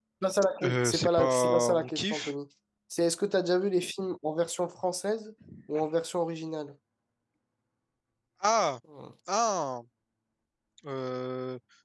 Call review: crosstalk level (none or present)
present